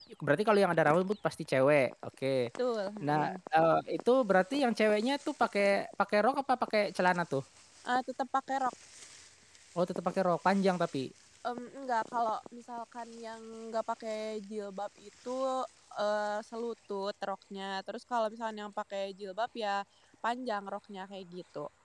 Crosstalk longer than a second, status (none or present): none